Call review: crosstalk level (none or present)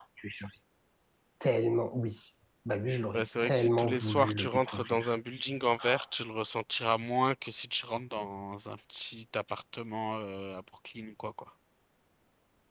present